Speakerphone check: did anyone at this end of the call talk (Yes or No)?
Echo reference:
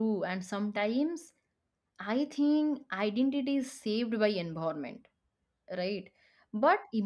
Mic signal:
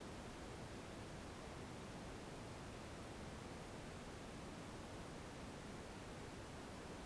No